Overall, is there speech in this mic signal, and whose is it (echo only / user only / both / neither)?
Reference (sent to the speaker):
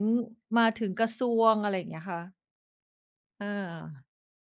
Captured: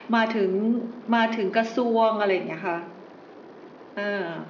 echo only